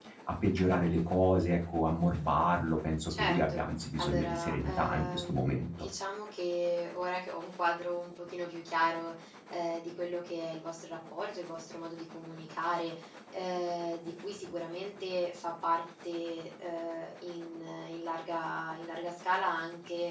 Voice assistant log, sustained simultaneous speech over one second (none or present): present